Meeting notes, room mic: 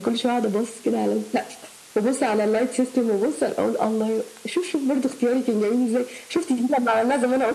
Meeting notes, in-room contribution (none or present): none